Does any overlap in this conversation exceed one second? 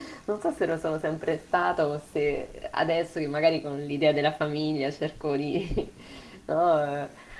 No

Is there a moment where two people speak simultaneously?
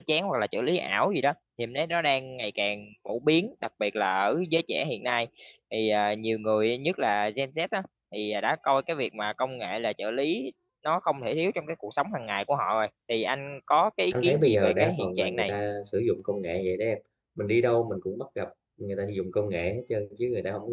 Yes, from 14.1 s

